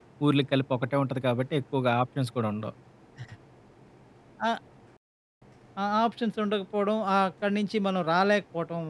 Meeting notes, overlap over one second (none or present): none